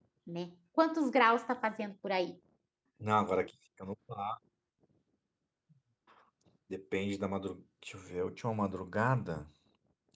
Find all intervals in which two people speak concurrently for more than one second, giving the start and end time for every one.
none

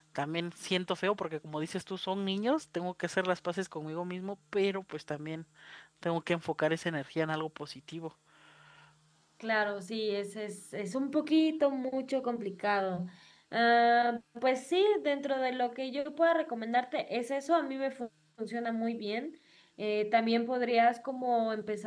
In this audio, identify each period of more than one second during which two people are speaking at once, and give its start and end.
none

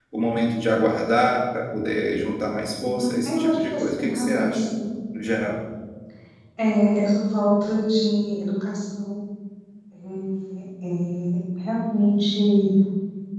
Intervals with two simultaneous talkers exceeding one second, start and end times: 3.2-4.7

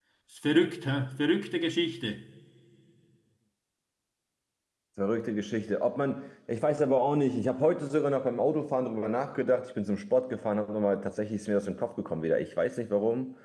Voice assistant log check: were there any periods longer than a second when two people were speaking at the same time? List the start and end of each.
none

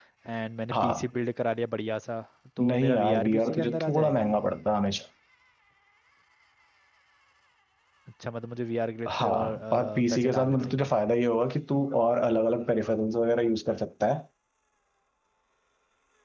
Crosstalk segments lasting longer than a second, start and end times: 2.7-4.3, 9.1-10.9

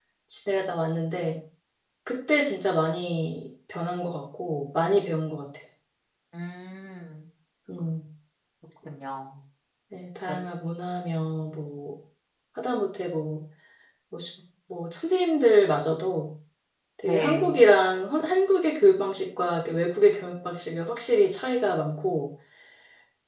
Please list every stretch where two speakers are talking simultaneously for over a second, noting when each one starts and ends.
none

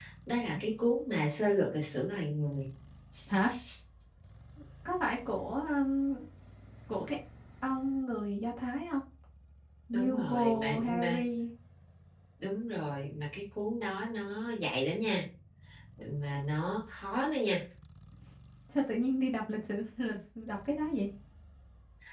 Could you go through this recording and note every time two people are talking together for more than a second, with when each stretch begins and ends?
9.9-11.2

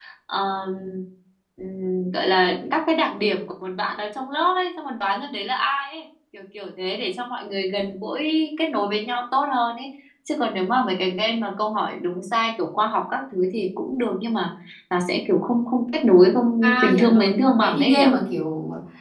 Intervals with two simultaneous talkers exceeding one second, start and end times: 16.6-18.0

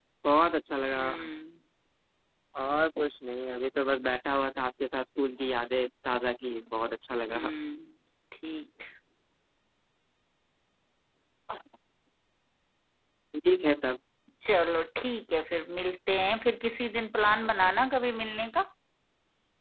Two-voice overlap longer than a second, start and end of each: none

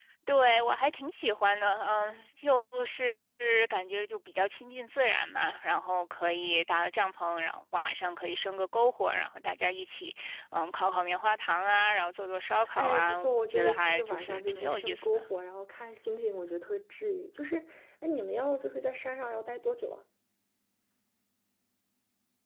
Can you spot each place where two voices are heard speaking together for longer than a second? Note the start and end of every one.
12.8-15.2

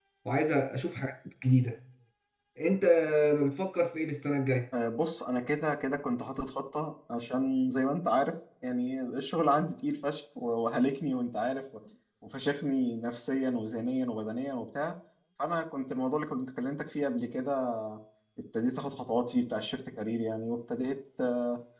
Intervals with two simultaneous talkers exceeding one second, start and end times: none

